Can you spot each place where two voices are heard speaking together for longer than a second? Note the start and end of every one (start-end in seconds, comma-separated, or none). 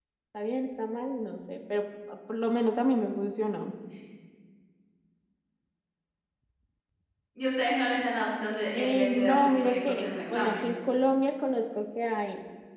8.7-10.7